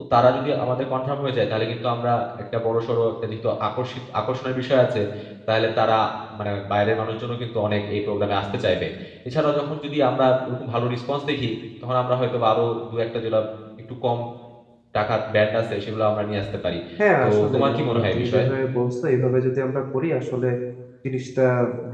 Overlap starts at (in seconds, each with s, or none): 17.2 s